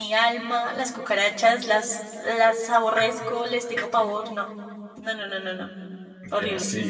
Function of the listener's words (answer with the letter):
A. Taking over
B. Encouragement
A